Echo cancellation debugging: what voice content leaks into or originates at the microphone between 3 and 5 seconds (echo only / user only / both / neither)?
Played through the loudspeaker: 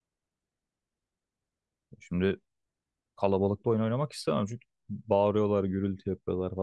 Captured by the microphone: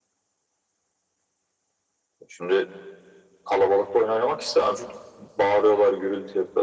echo only